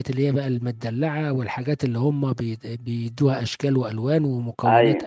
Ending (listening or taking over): listening